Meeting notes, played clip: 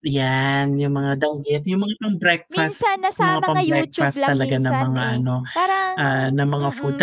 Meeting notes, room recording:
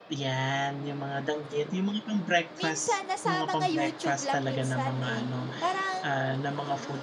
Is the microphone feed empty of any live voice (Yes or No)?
Yes